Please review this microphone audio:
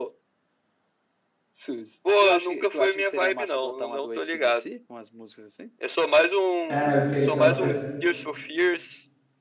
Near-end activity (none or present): present